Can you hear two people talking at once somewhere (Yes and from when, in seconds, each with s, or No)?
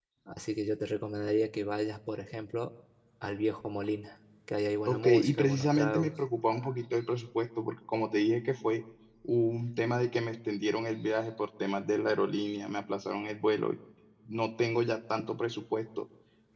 Yes, from 4.8 s